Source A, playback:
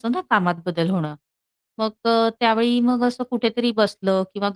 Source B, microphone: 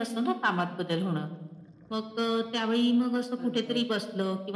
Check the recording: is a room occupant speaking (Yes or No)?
Yes